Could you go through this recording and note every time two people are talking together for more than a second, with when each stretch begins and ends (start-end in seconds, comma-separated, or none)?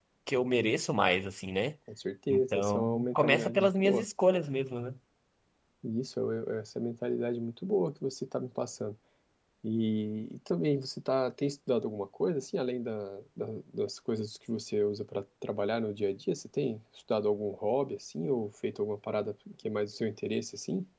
2.3-4.0